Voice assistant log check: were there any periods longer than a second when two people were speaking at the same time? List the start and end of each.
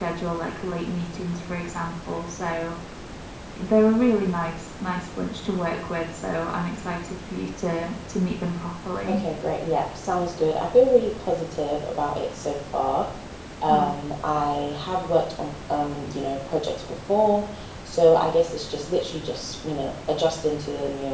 none

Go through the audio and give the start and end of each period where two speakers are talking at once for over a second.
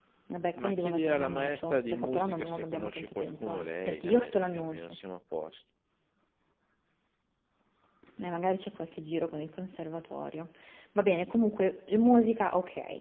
0.5-5.0

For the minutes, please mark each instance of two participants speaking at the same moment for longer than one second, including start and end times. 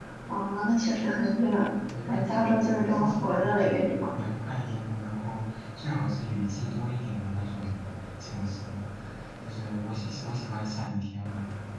2.0-4.0

